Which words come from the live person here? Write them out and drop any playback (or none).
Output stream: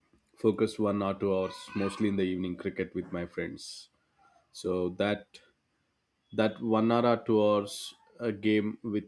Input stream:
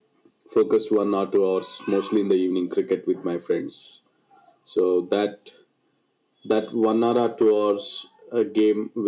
none